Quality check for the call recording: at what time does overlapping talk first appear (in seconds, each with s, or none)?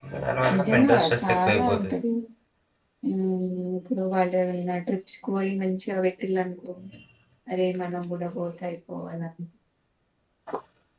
0.5 s